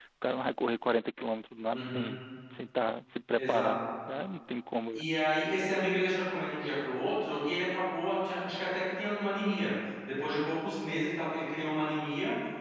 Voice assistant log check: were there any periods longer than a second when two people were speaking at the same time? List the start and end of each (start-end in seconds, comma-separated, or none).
none